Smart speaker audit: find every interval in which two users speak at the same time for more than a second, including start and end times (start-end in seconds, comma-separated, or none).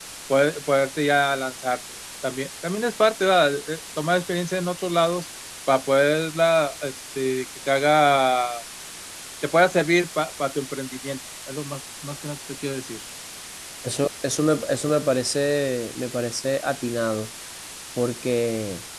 none